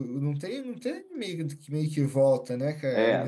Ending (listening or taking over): taking over